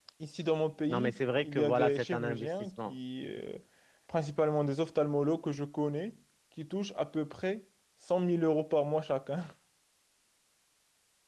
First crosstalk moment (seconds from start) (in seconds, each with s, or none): 0.9 s